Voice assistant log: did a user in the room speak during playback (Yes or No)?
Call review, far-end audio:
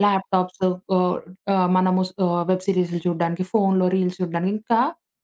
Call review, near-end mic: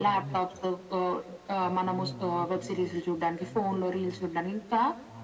Yes